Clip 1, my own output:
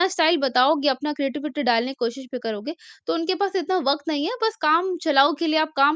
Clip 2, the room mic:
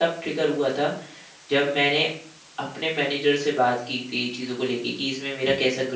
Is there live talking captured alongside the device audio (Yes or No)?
Yes